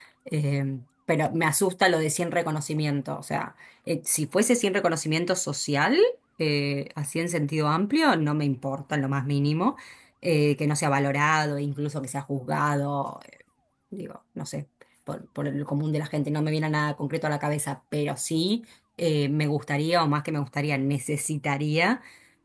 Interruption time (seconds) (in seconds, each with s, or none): none